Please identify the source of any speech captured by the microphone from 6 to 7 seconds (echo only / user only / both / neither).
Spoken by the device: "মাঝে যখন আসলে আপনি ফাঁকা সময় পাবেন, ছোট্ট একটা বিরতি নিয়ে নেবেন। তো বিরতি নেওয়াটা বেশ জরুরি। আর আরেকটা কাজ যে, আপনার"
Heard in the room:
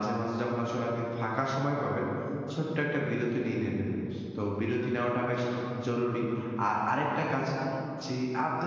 echo only